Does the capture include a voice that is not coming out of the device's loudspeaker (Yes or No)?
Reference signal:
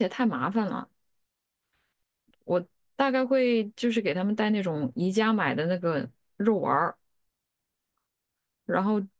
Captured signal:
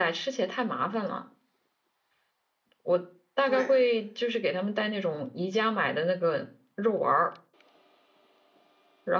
Yes